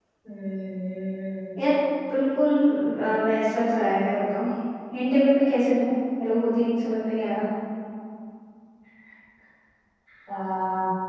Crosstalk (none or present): none